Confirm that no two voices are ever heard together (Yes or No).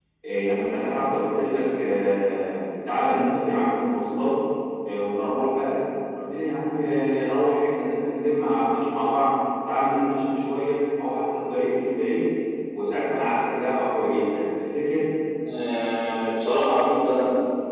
Yes